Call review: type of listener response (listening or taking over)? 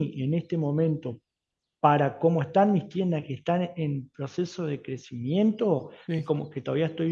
listening